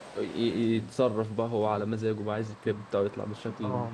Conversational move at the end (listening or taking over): taking over